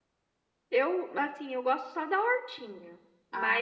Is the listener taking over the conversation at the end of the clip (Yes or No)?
No